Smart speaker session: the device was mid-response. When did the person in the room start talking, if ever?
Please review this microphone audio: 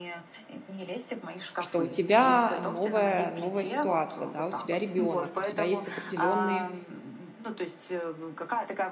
1.6 s

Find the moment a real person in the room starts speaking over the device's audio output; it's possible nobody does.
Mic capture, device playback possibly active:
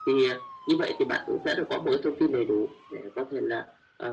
none

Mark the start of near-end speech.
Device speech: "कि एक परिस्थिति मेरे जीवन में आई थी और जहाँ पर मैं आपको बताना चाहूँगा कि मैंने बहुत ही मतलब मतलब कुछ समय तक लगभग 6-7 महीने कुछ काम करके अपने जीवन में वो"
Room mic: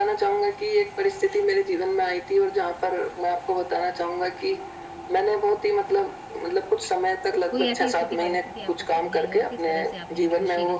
7.5 s

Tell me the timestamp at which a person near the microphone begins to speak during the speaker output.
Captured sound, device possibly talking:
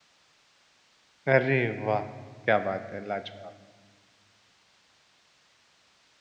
1.3 s

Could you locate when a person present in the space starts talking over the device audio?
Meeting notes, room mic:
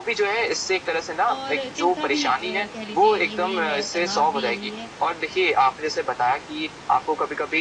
1.3 s

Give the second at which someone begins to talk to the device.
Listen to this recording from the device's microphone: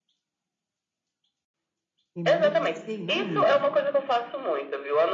2.1 s

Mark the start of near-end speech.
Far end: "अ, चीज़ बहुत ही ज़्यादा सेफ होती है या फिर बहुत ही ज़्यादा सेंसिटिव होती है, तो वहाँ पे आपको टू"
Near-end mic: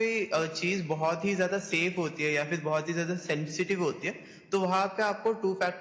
none

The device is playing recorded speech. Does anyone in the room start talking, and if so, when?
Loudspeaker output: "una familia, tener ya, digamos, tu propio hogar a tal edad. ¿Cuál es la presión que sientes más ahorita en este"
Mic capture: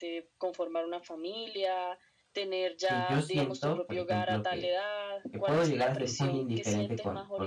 2.9 s

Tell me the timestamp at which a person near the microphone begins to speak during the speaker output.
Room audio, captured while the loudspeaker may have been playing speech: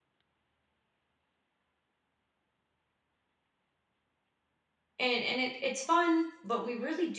5.0 s

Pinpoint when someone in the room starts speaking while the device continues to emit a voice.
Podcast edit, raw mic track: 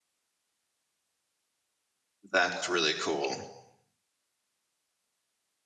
2.3 s

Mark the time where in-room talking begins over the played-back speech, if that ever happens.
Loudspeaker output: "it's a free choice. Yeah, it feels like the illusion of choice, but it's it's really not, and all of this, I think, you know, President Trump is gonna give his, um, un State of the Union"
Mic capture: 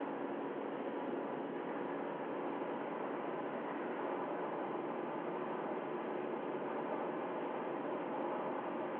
none

